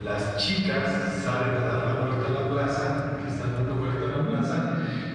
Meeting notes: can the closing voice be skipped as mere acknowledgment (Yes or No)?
Yes